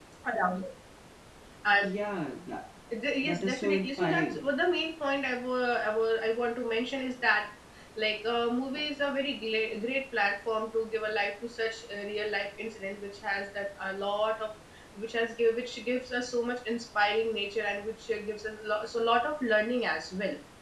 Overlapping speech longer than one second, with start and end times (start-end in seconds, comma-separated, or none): 3.2-4.4